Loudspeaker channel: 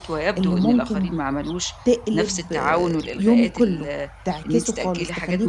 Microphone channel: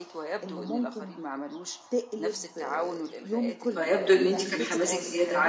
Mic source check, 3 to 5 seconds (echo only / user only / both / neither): both